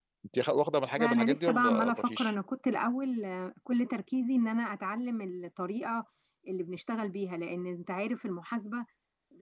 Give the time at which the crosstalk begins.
1 s

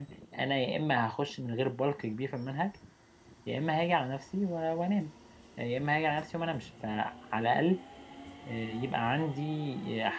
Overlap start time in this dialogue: none

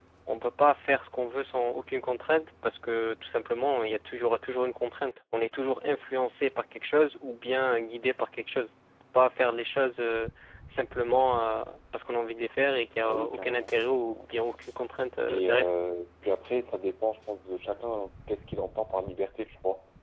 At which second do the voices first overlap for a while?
13 s

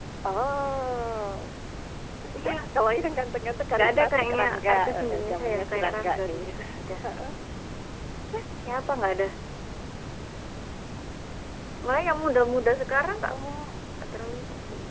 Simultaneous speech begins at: 4 s

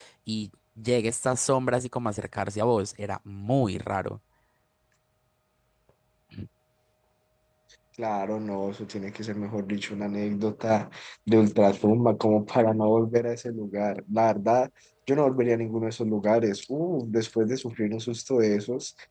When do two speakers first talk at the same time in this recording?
none

